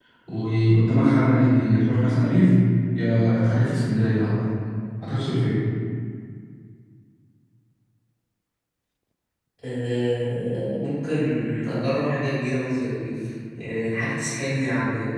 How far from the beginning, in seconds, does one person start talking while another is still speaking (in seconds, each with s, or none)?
none